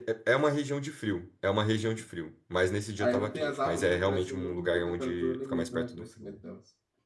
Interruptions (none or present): present